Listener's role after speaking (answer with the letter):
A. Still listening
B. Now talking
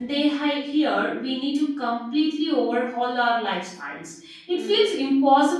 A